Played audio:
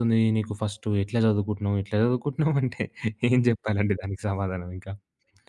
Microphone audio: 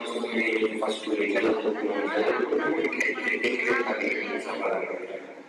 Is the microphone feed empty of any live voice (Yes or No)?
No